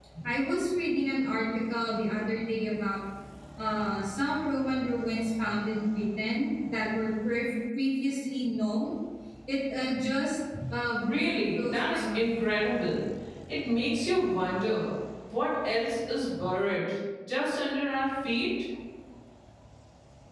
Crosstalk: present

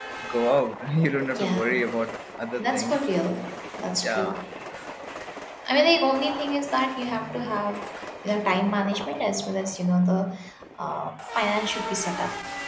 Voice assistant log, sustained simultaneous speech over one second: none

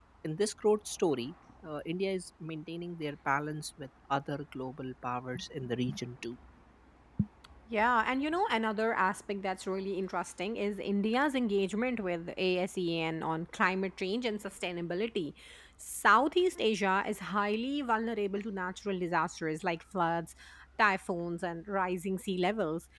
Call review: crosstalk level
none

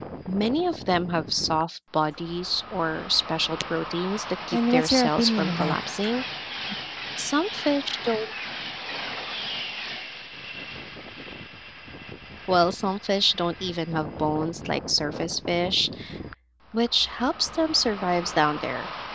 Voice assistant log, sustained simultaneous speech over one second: present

